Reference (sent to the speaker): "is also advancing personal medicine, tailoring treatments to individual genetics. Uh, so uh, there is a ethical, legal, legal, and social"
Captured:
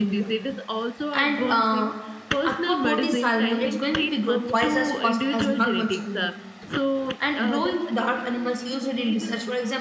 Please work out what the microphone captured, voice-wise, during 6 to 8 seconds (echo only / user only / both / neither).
both